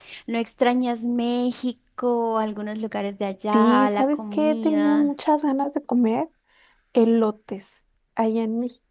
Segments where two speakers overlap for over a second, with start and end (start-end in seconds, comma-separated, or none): 3.5-5.1